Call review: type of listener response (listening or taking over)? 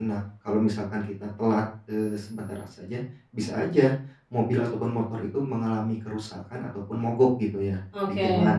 listening